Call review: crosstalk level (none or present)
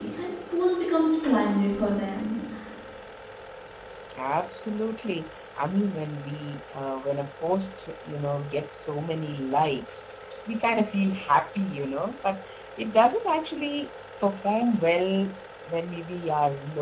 none